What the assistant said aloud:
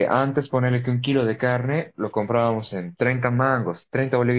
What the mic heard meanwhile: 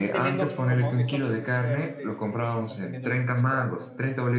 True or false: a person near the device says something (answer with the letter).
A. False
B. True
B